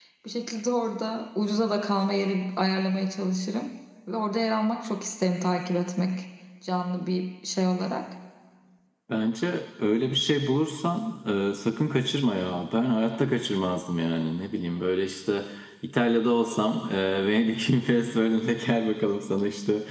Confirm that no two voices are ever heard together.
Yes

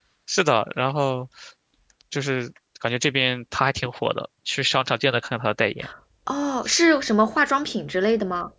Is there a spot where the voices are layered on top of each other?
No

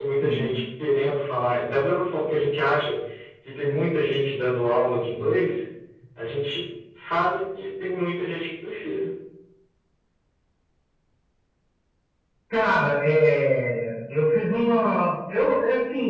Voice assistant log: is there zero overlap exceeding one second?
Yes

